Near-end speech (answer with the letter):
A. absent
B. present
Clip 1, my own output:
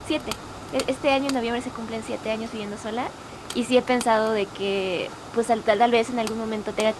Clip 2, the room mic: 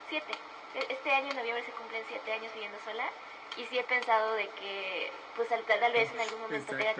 B